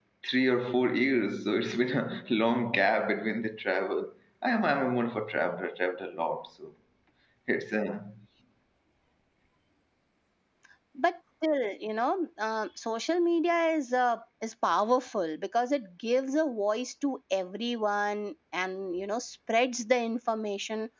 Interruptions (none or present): none